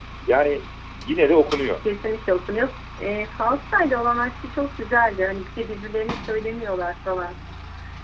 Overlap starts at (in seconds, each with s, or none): none